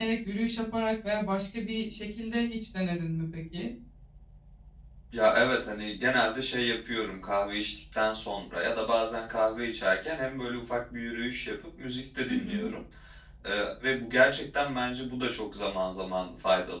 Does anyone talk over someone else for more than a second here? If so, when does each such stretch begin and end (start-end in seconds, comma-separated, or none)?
none